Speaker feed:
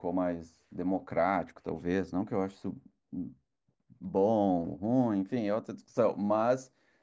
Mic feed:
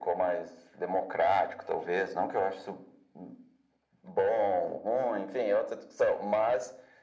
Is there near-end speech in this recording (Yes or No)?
No